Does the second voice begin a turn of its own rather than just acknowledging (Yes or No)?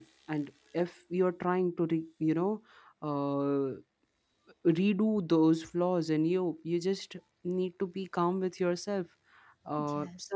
No